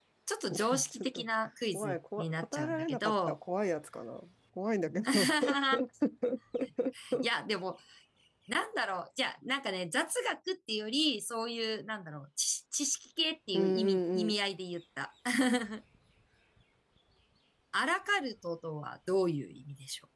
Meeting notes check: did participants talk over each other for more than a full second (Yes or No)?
Yes